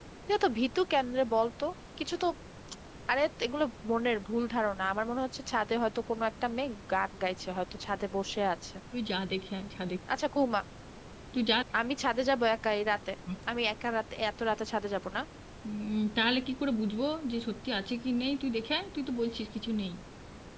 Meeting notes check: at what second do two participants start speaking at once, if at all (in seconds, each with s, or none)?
none